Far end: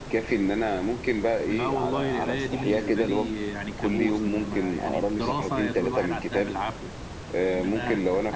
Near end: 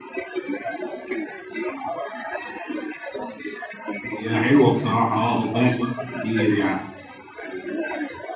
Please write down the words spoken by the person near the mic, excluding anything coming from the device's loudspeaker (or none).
هي حلوه بصراحه اه بتضيع وقت كتير يعني